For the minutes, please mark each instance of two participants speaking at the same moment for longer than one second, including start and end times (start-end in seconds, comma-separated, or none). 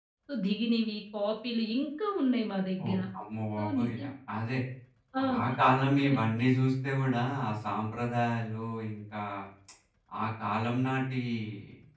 none